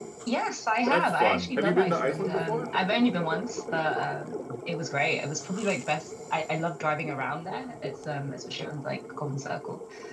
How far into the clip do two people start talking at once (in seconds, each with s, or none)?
0.9 s